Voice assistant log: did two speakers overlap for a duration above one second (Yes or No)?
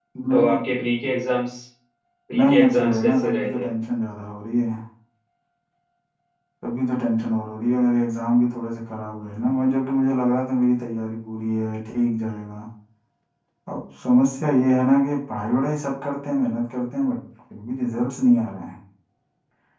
Yes